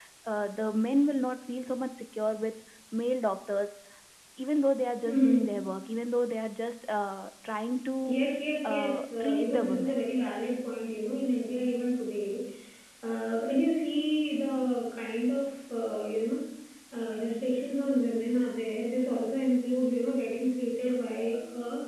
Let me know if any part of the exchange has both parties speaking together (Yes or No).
Yes